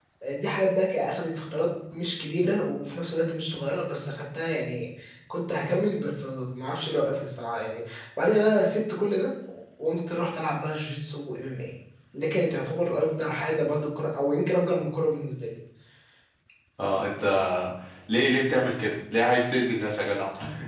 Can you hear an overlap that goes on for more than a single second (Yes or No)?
No